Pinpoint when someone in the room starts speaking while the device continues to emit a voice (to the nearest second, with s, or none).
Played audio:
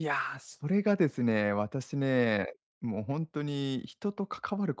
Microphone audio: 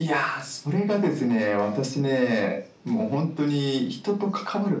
none